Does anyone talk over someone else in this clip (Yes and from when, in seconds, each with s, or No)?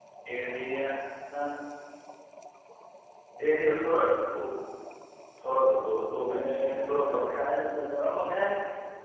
Yes, from 6.3 s